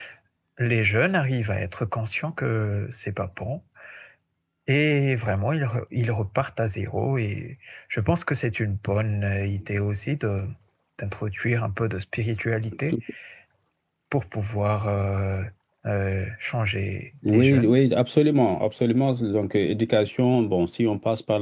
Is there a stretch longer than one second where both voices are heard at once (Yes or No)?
No